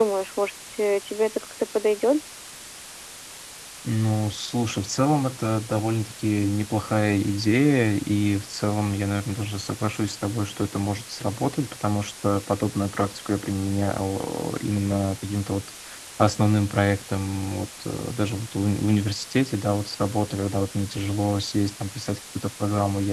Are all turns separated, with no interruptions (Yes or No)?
Yes